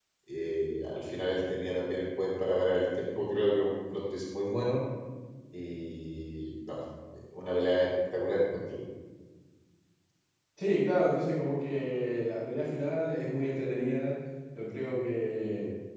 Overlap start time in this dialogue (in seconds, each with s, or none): none